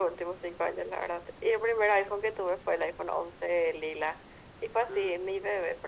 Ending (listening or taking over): listening